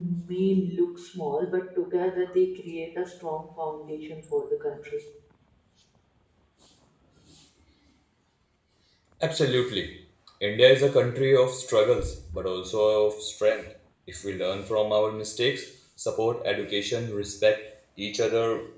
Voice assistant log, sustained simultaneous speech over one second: none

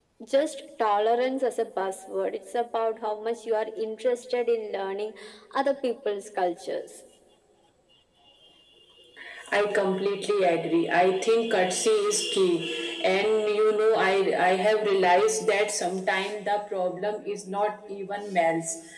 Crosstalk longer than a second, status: none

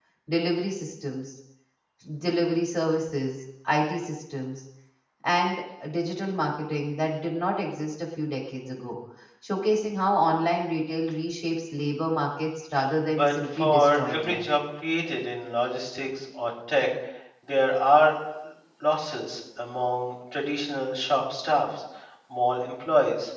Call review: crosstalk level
present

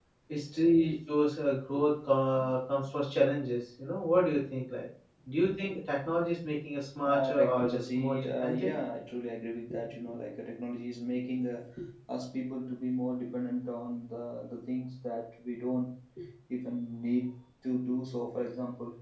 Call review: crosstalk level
present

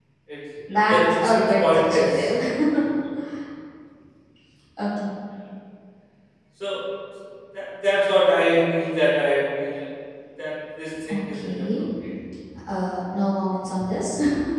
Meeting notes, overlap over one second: present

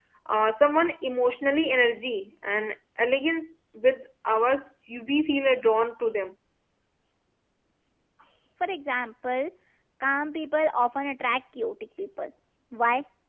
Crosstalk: none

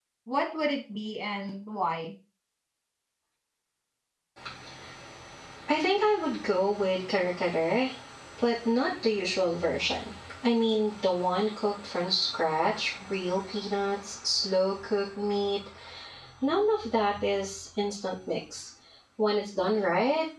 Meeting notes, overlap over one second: none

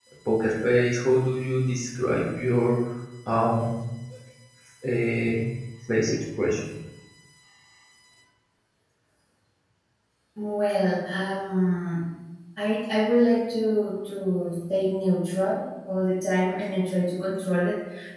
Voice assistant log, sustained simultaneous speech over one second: none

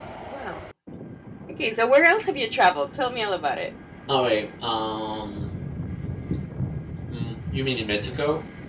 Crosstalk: none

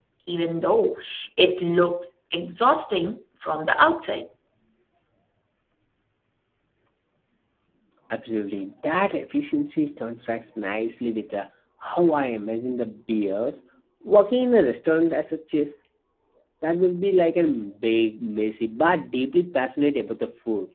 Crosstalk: none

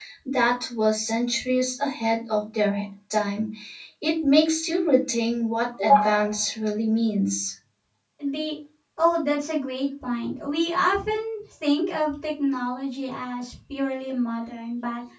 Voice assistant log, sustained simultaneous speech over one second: none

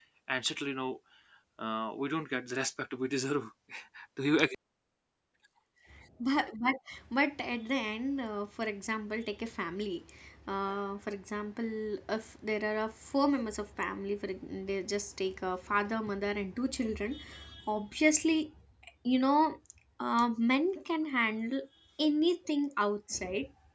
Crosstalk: none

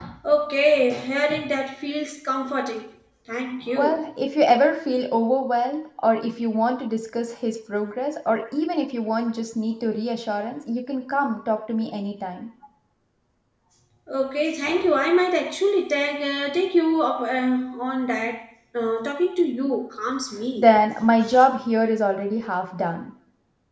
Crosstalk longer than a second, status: none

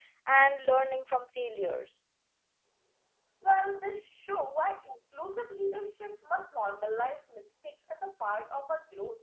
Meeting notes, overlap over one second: none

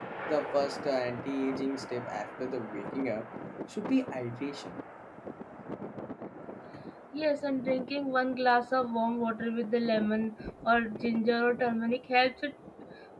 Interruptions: none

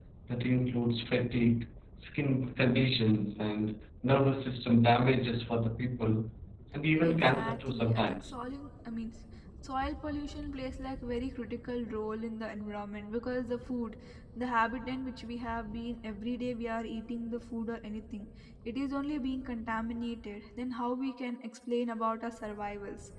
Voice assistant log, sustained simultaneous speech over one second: present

